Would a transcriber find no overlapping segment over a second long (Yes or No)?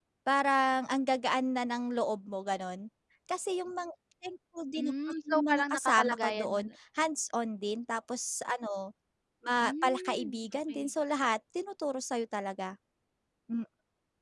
No